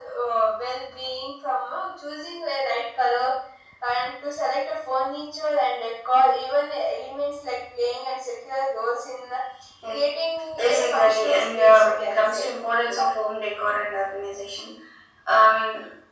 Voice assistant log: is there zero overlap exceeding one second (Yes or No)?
No